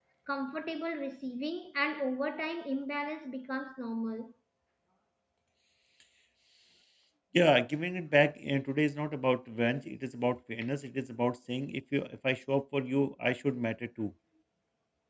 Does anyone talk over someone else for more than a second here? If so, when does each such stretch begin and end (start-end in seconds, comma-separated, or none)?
none